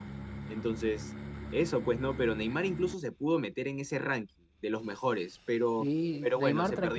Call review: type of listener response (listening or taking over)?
taking over